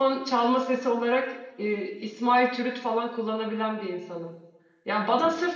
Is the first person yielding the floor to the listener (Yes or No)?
No